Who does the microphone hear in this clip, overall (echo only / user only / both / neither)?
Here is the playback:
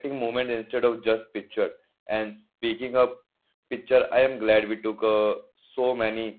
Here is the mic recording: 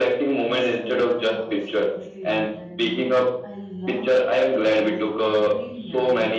both